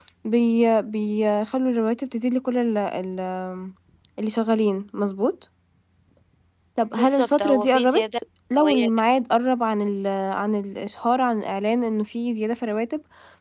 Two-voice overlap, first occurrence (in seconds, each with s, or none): 6.9 s